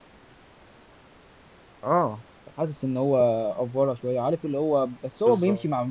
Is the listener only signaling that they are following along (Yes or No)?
Yes